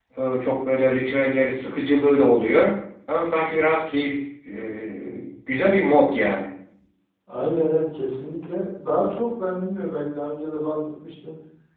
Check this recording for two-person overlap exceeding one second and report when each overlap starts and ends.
none

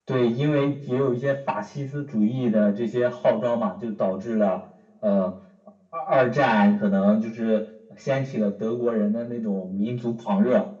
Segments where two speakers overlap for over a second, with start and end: none

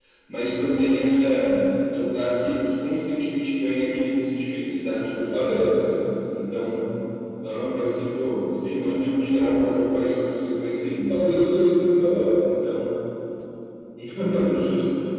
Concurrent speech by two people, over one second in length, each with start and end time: none

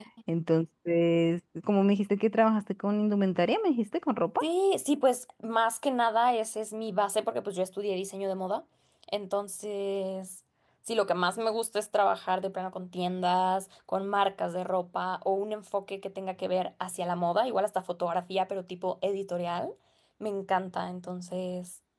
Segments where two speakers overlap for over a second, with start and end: none

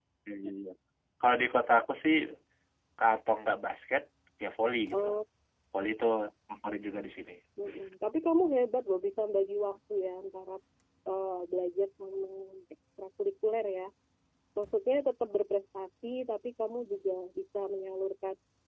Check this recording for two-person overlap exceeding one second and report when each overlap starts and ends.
none

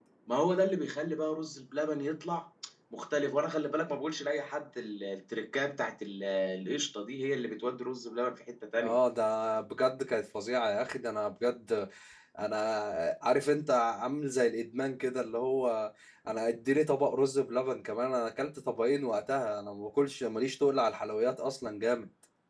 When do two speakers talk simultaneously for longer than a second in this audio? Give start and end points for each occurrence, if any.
none

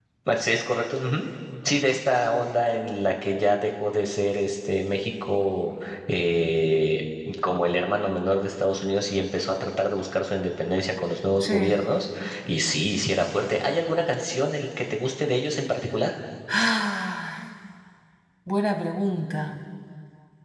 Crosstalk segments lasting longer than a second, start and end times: none

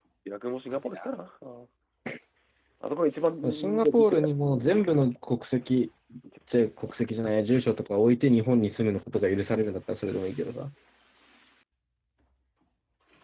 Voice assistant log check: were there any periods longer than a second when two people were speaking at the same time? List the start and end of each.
3.5-4.8

